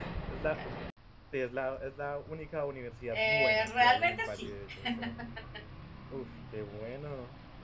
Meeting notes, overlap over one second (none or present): present